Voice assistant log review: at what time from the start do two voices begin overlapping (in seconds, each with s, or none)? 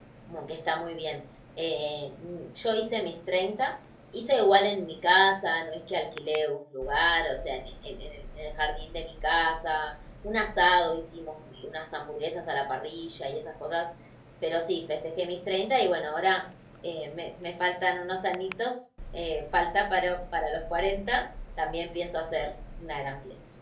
none